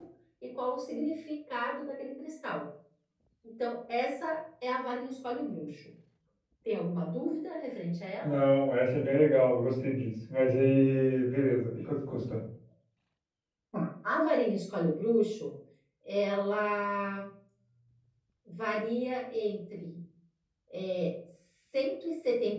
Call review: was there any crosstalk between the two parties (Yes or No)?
No